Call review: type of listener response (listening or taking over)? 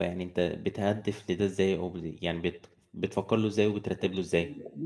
taking over